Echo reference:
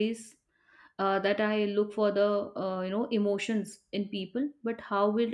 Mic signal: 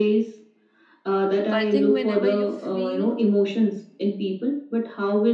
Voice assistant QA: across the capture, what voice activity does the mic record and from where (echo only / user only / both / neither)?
both